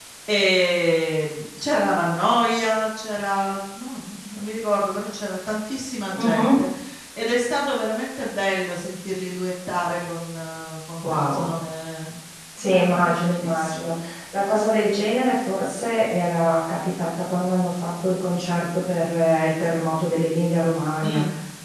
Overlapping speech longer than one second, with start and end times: 12.7-14.0

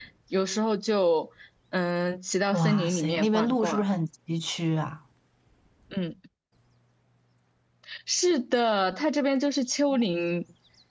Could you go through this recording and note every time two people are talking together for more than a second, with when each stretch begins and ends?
2.5-3.8

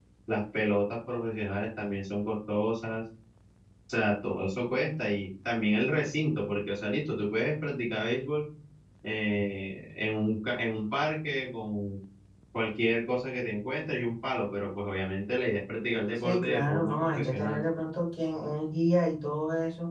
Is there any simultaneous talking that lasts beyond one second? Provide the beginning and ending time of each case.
16.1-17.6

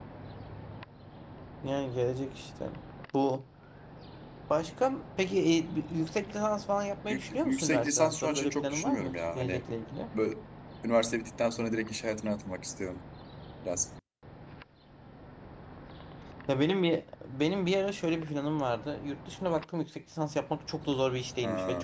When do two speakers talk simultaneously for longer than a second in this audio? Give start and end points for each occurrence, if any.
7.1-9.6

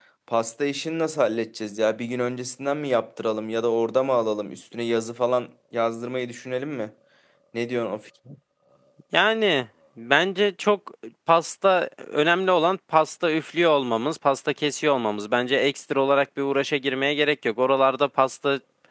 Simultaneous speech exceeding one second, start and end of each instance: none

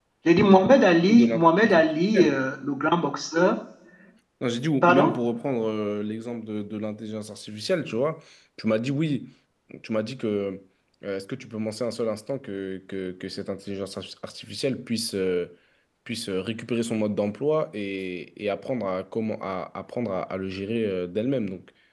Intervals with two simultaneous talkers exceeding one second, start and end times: 1.1-2.4

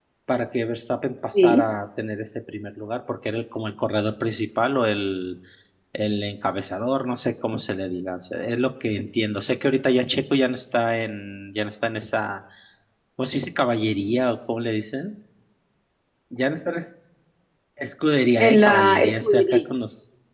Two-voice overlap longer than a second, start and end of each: 18.4-19.6

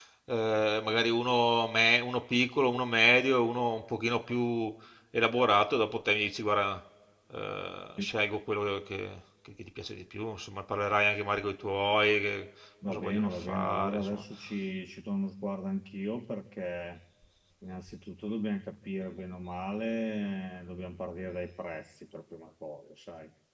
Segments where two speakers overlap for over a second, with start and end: 12.9-14.2

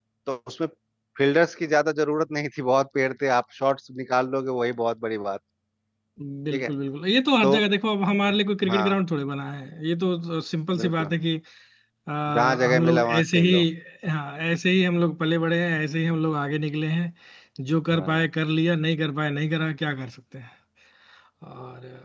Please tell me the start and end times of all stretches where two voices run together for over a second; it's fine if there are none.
12.3-13.5

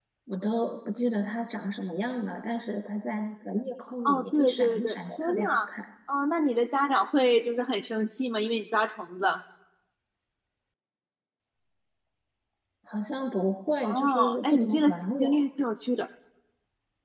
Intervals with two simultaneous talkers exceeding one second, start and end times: 4.0-5.6, 13.8-15.4

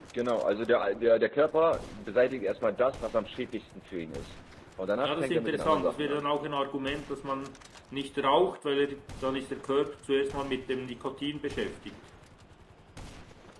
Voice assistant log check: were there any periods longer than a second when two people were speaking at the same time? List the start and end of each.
5.0-6.2

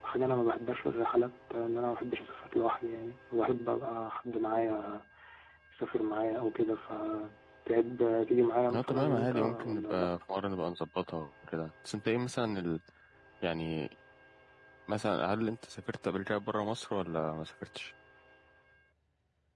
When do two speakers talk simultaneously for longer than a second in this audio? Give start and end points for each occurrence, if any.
8.7-10.1

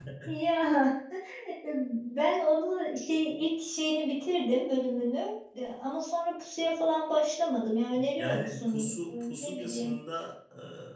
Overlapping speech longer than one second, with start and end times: 8.2-9.9

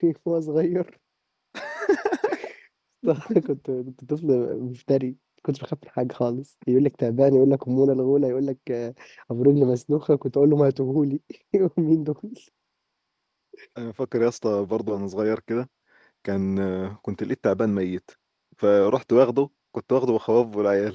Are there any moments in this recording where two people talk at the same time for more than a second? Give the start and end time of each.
none

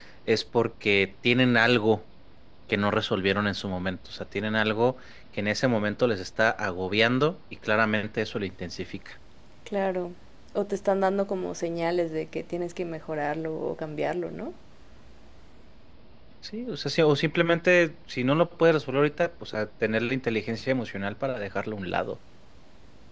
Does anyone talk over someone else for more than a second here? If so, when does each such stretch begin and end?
none

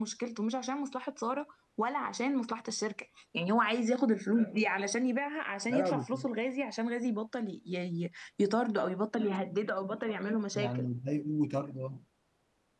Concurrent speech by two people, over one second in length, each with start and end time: none

